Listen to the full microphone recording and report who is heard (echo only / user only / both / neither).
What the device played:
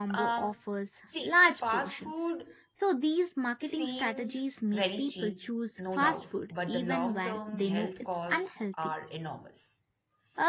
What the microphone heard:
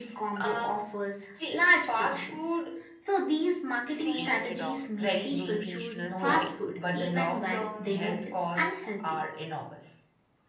both